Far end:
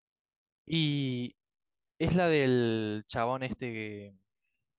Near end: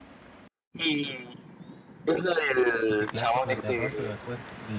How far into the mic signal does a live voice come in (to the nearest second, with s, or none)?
3 s